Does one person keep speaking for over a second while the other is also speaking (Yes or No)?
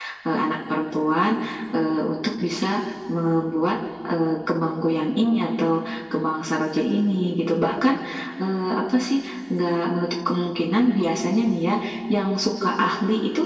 No